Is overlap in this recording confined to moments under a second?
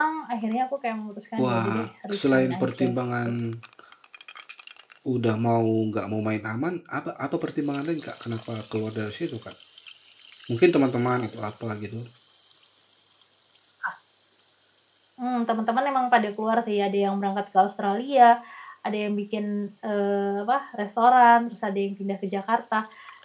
No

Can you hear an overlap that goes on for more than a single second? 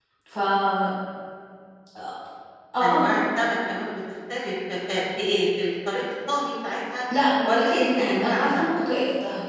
Yes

